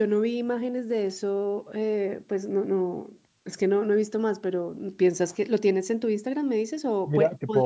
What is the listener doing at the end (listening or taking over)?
taking over